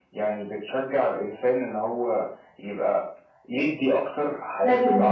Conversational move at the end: listening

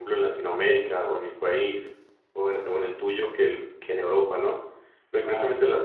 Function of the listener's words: listening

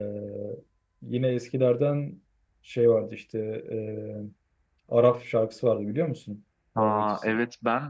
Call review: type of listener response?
taking over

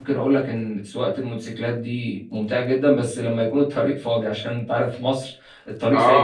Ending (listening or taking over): taking over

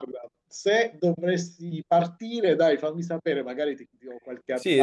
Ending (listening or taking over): taking over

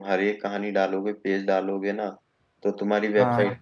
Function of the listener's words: listening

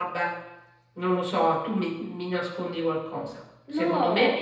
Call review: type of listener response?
listening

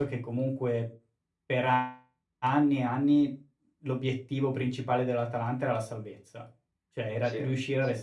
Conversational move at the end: listening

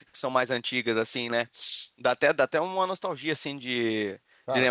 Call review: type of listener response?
listening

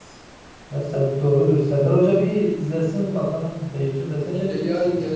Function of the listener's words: taking over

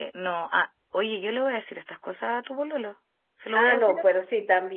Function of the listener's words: taking over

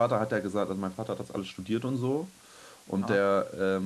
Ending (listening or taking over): listening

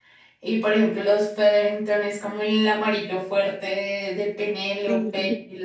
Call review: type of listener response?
listening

